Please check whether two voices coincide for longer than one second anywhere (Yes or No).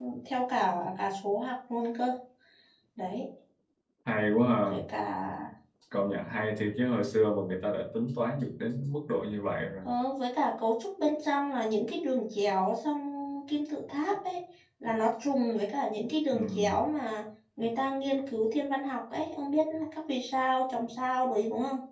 No